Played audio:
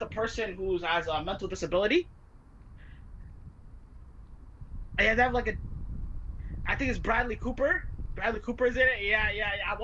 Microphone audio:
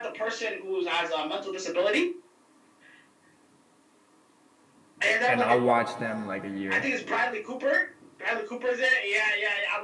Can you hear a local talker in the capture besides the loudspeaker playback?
Yes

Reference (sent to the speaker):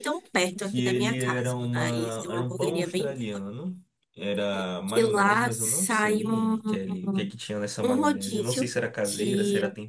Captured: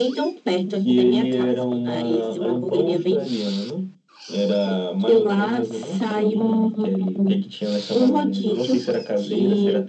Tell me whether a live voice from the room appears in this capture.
No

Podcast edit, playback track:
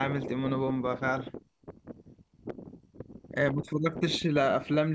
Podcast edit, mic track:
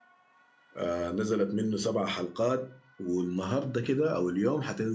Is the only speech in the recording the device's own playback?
No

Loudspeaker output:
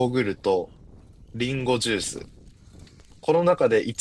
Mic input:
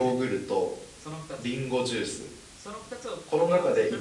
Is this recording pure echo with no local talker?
No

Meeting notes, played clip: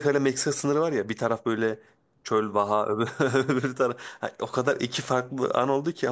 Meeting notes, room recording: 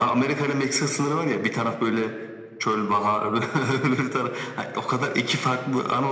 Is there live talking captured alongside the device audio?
No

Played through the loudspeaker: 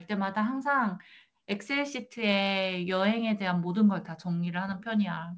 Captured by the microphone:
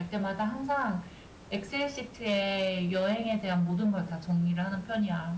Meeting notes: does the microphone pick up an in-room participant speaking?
No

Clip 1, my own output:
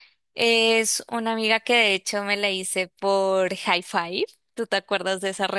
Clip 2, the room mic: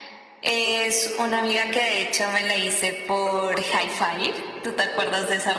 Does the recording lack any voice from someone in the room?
No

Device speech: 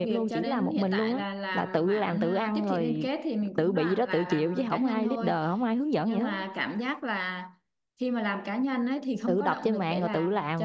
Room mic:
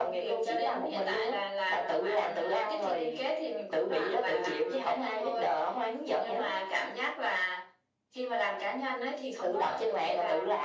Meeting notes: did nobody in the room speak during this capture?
Yes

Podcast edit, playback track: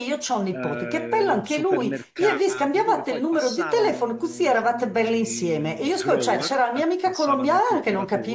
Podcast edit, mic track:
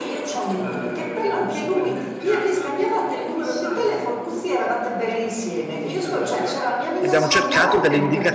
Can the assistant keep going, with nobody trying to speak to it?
No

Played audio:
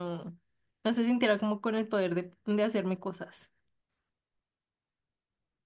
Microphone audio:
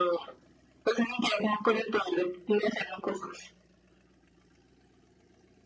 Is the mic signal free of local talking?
Yes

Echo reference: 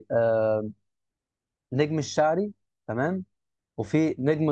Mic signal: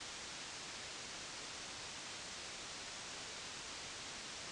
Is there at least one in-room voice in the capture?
No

